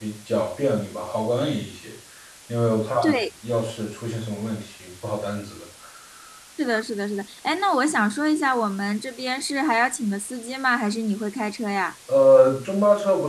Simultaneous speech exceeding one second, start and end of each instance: none

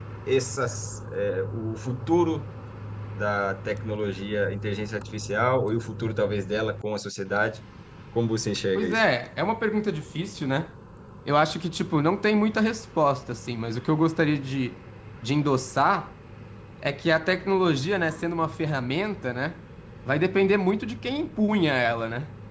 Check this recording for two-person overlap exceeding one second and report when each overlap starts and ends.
none

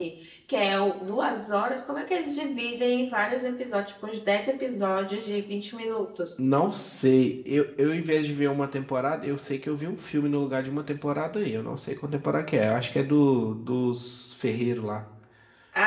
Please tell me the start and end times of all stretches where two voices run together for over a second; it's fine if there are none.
none

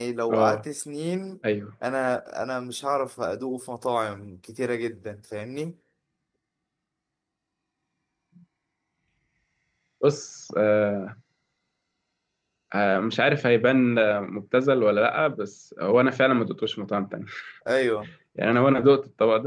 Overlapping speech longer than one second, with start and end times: none

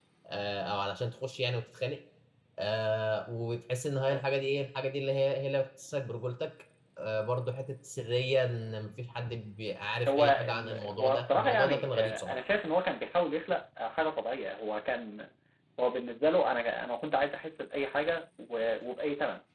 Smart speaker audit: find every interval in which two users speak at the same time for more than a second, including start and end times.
10.1-12.4

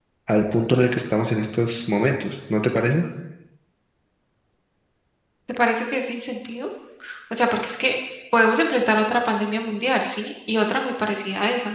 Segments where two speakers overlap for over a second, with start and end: none

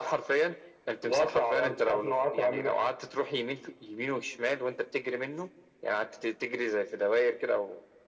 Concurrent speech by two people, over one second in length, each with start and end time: 1.1-2.7

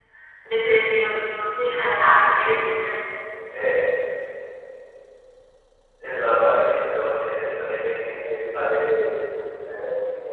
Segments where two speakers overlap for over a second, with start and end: none

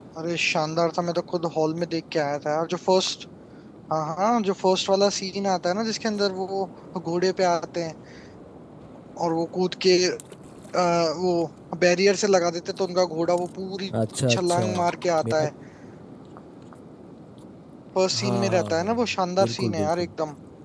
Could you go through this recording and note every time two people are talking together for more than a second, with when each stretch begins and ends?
18.1-20.1

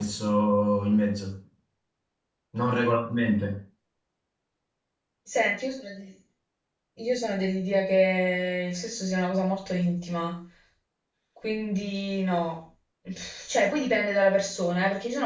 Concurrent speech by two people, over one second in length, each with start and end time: none

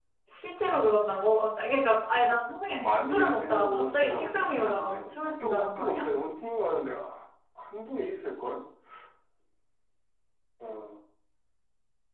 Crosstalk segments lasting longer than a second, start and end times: 2.7-6.1

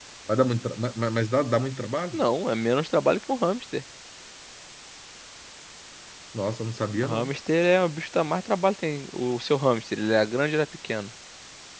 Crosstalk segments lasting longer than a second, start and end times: none

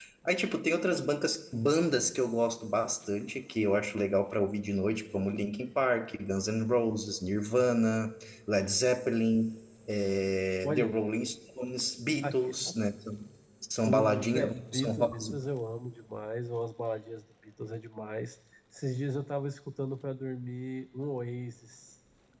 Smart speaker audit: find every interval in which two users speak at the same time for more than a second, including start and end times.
13.8-15.2

